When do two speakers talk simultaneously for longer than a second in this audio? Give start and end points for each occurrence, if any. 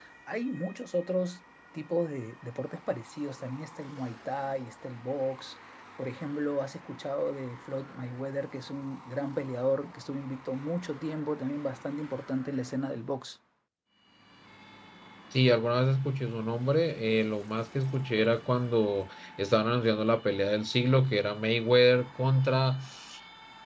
none

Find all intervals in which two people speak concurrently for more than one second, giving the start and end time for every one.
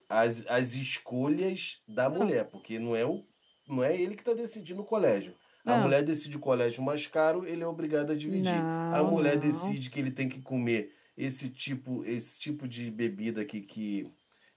8.3-9.8

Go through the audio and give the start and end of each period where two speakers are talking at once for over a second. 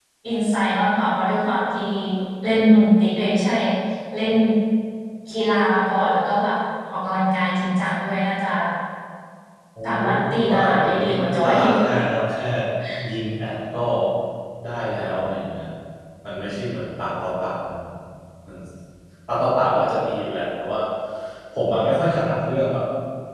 10.1-11.7

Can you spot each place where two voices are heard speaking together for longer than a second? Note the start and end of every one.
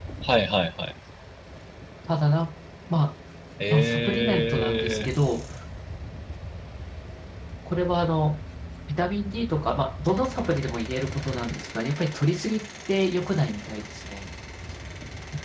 3.7-5.1

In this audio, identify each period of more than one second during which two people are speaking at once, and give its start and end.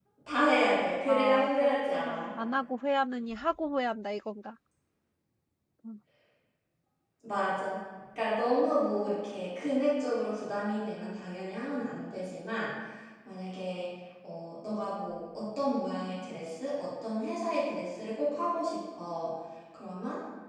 1.0-2.3

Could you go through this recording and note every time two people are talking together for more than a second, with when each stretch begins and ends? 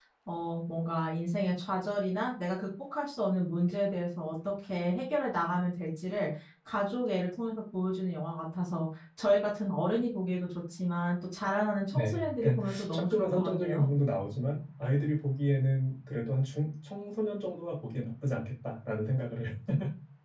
11.9-13.9

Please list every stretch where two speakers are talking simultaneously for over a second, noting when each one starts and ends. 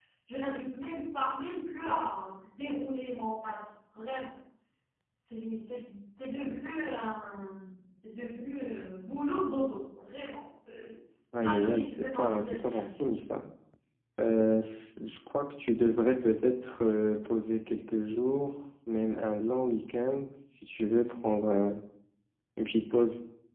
11.3-12.8

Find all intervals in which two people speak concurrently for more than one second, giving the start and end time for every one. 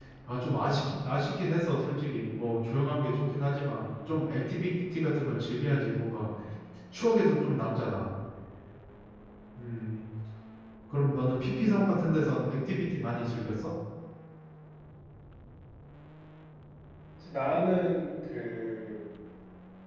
none

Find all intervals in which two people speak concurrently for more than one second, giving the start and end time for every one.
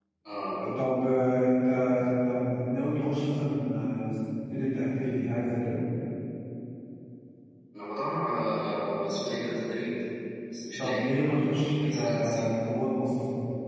10.8-12.5

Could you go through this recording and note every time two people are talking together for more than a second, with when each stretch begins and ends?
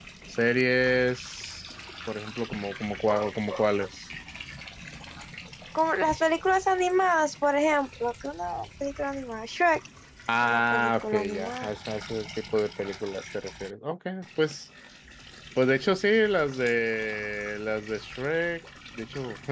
10.4-11.7

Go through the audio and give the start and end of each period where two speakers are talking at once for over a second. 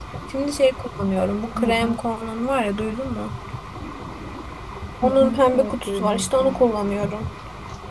5.0-6.5

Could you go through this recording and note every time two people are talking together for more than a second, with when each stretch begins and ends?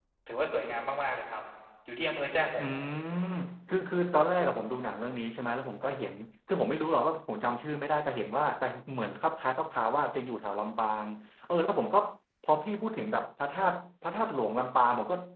none

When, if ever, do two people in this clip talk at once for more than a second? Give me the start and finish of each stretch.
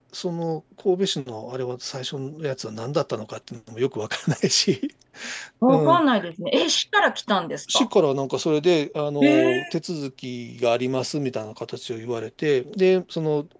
none

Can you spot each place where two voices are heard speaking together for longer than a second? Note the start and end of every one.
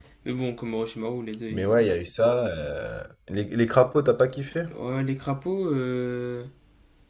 none

